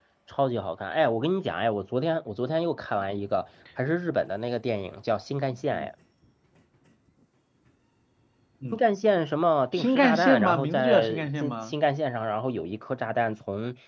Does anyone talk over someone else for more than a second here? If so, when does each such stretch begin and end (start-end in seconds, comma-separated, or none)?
9.7-11.7